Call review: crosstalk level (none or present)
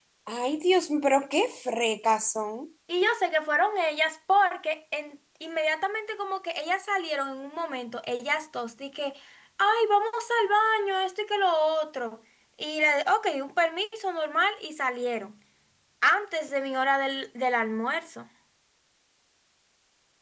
none